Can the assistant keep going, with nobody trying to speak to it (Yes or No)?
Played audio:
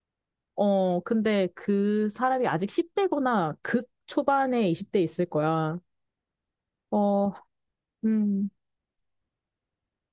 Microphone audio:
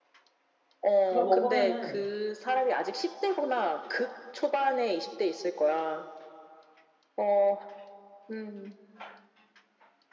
No